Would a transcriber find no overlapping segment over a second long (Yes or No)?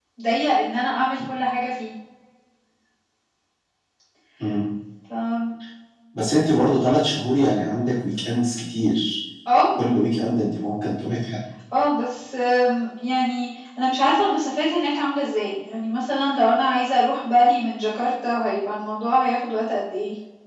Yes